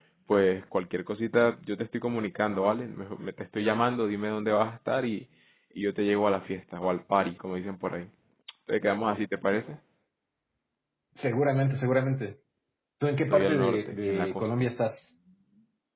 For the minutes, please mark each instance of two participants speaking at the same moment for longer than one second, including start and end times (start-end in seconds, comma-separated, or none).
13.3-14.5